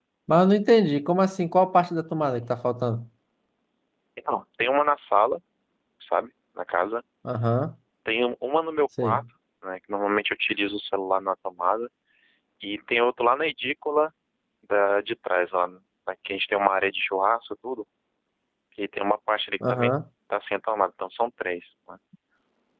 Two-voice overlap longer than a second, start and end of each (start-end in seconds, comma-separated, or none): none